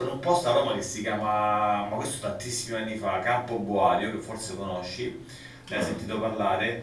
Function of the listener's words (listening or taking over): listening